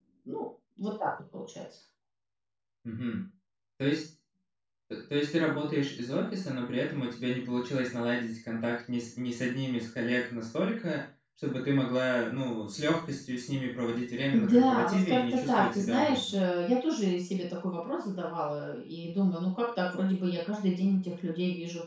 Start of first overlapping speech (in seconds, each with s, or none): 14.3 s